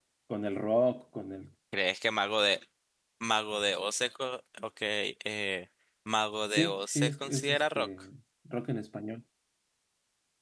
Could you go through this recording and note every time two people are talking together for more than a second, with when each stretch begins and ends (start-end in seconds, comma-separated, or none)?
6.5-7.9